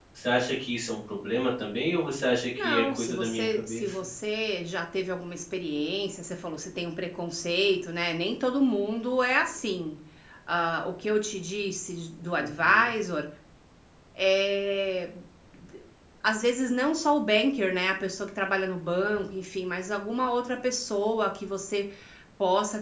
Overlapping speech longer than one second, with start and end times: 2.6-4.0

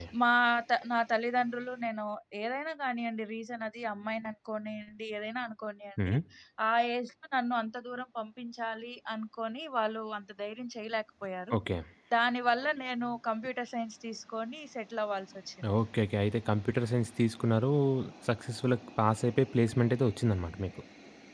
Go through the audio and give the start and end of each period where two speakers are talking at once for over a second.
none

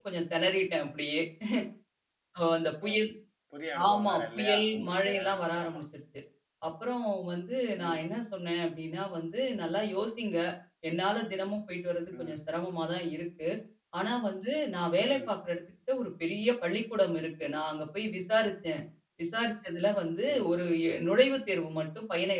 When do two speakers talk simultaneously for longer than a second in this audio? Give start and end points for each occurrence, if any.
3.9-5.8

